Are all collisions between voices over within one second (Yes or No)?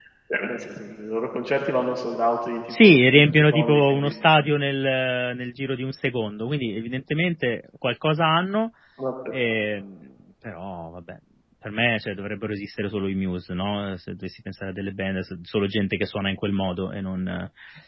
No